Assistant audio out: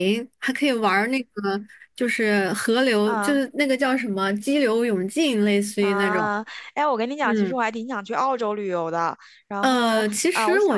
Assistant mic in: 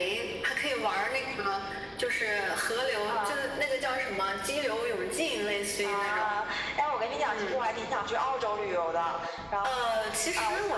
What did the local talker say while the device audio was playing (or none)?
none